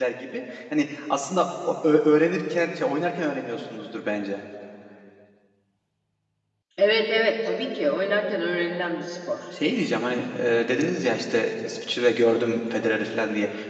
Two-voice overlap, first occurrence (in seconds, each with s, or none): none